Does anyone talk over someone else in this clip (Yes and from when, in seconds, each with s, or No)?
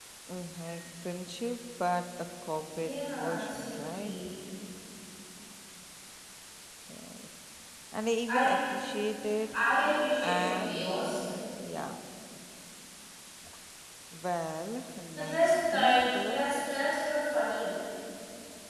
Yes, from 2.8 s